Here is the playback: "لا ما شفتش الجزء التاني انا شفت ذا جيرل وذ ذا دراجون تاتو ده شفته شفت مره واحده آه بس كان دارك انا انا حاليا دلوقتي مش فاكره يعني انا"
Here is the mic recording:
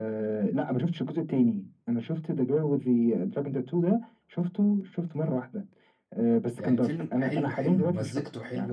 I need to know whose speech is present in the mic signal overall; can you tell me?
both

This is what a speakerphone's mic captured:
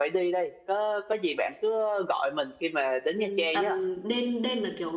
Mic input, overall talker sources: both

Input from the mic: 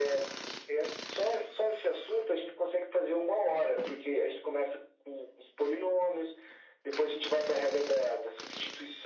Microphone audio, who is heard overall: echo only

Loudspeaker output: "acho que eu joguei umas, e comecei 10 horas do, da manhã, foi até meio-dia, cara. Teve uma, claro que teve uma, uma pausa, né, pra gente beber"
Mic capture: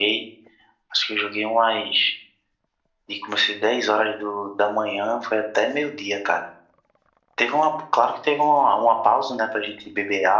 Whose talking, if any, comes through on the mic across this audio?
echo only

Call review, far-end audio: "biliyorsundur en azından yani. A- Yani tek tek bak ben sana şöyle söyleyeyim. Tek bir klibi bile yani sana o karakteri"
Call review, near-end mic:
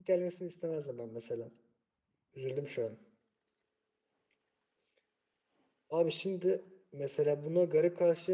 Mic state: user only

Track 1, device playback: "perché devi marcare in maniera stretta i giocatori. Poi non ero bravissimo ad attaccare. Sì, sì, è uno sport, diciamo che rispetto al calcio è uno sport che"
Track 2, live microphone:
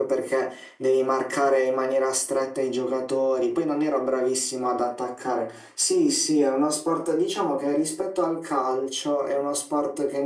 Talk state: echo only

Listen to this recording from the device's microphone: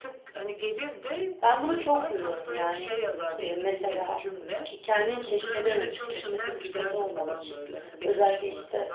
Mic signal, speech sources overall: both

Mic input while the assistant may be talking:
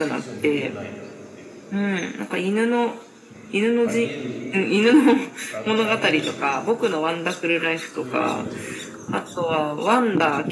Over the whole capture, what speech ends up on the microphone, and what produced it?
both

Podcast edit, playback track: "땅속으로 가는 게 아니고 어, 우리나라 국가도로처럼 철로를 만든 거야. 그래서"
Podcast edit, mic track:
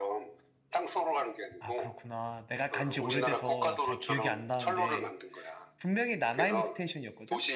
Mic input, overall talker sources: both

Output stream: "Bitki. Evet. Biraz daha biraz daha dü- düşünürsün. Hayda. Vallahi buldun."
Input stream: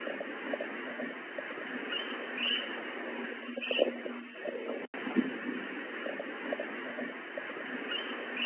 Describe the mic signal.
neither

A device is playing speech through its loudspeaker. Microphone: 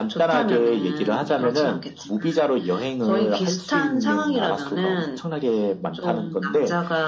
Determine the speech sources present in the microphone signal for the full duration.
echo only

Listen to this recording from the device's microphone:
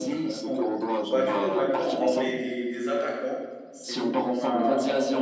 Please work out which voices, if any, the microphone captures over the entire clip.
both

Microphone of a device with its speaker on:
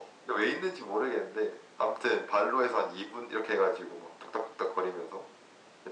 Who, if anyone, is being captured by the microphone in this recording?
echo only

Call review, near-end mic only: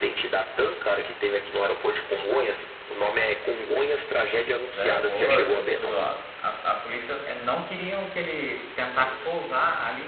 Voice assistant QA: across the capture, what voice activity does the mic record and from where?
both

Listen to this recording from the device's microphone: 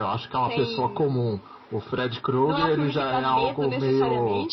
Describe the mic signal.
echo only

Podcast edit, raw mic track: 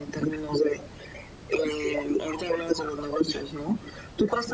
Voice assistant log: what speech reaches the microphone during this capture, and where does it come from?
echo only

